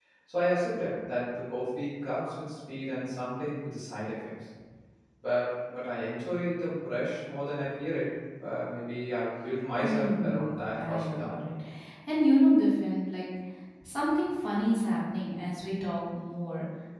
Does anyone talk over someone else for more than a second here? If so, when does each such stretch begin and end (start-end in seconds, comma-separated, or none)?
9.8-11.3